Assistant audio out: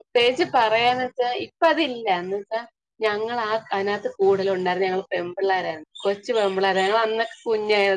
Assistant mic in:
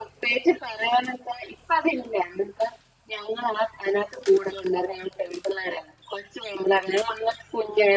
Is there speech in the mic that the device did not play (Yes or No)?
No